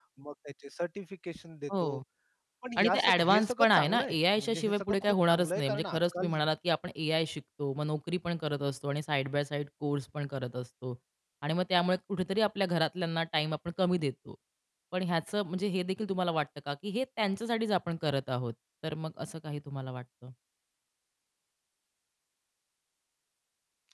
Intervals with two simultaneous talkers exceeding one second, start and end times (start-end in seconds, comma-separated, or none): 2.8-6.3